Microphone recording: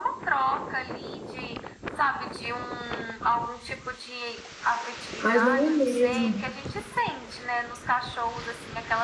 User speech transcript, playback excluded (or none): Mas não é mesmo.